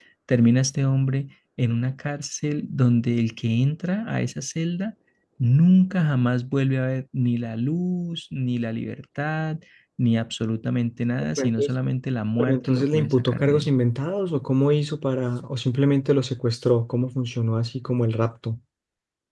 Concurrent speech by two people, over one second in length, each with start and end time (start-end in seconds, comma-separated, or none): 12.4-13.7